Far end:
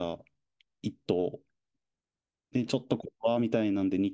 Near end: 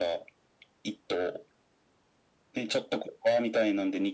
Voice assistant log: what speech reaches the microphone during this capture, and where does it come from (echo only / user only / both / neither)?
echo only